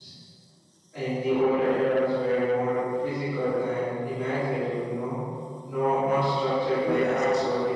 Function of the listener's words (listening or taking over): listening